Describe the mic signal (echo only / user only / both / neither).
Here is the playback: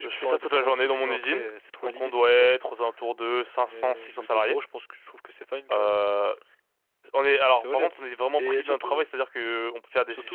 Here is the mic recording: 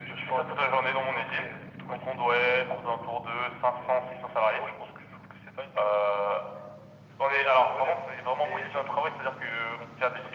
echo only